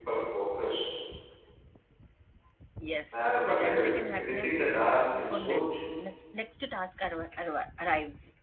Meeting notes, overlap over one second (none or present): present